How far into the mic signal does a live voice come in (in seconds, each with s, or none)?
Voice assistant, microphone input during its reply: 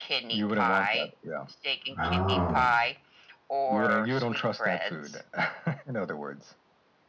2.0 s